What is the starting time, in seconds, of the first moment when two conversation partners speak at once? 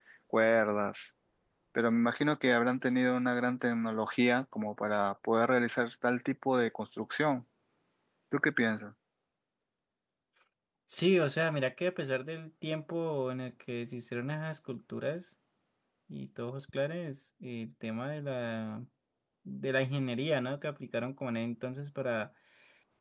none

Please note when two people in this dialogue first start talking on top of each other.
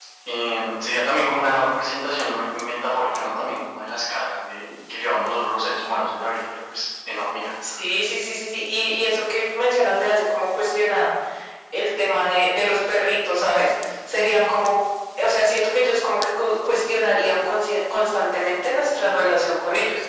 none

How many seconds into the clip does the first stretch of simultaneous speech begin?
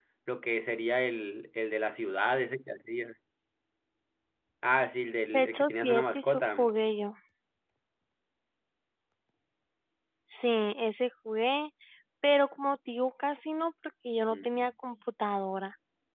5.3 s

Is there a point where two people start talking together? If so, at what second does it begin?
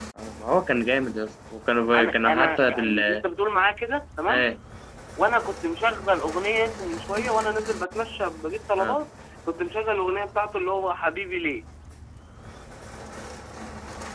1.9 s

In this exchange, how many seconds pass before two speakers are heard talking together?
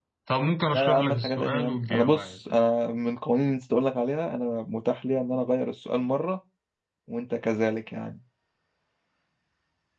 0.7 s

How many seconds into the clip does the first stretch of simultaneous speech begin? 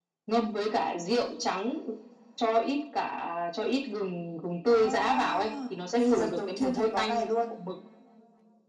4.7 s

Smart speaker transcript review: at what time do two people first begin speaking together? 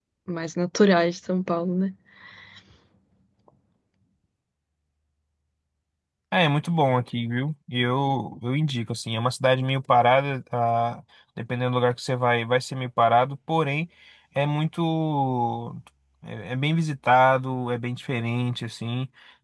none

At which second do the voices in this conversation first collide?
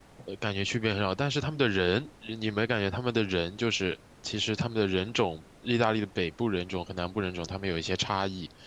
none

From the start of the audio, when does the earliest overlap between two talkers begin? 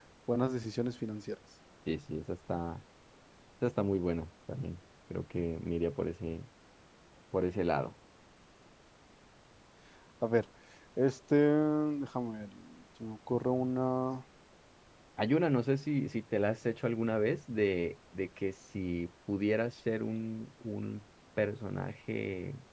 none

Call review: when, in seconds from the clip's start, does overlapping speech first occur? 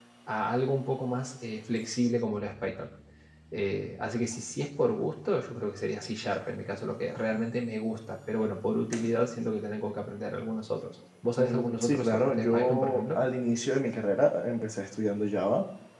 11.4 s

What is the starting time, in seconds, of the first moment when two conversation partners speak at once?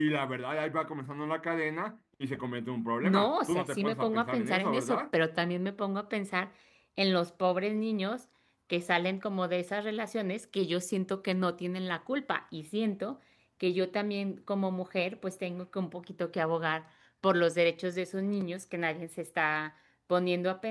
3.0 s

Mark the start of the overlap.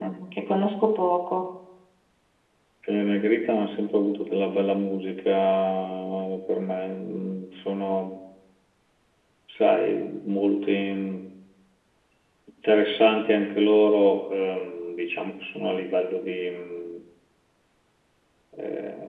none

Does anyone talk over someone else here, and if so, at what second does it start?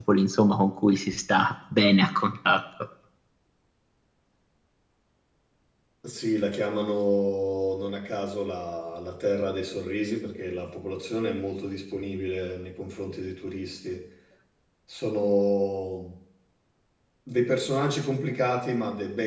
none

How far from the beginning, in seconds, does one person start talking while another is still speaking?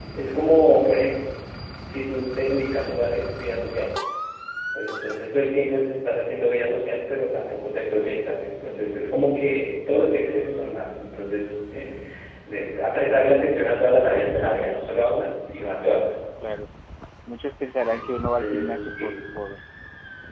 17.8 s

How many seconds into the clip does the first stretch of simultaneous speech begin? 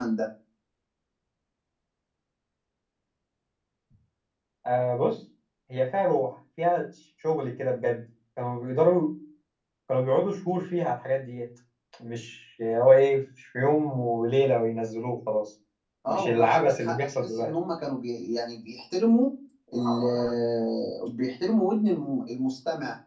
16.1 s

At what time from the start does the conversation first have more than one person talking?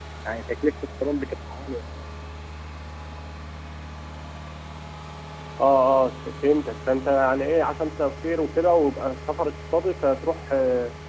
none

